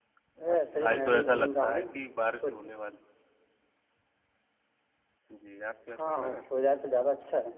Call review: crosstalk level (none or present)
present